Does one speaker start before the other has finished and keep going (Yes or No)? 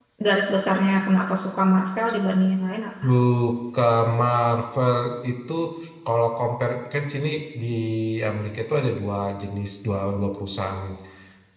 No